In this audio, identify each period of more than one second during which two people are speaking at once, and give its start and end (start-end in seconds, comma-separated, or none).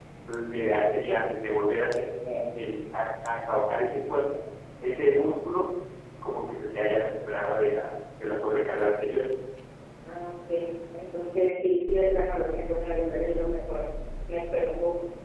none